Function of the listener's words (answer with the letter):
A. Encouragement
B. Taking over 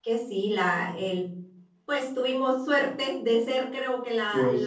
A